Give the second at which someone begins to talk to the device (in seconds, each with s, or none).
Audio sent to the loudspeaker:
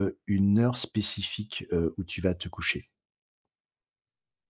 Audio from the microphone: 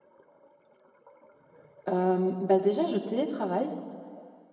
1.9 s